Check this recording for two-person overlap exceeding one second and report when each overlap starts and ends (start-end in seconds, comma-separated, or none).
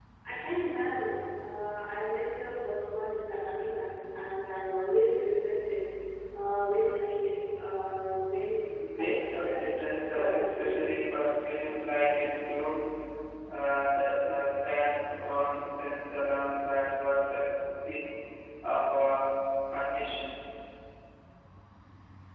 9.0-10.8